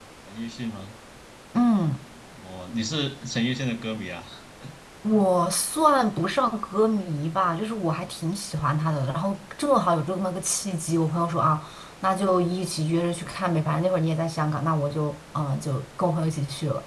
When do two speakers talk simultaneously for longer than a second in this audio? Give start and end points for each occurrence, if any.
none

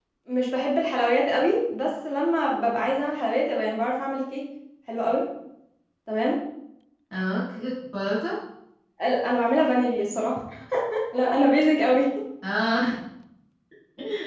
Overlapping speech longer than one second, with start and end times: none

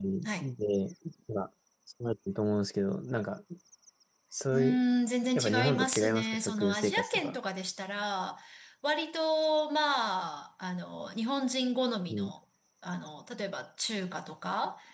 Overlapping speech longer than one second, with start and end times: 5.4-7.4

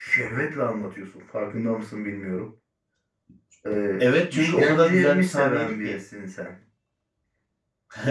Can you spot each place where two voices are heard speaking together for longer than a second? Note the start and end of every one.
4.0-6.0

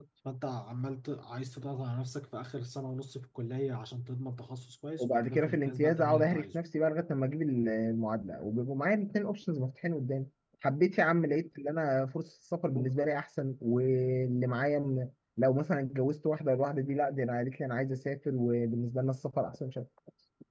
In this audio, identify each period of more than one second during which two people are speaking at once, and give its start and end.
5.0-6.5

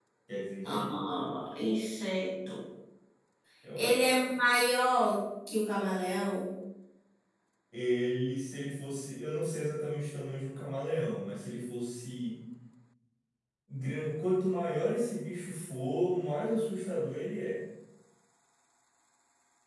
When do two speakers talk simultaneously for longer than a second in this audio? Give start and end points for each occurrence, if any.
none

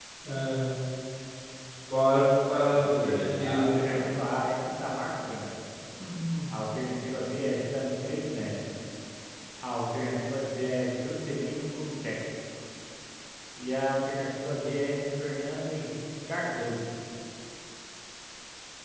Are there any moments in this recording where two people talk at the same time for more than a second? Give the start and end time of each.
2.7-4.2

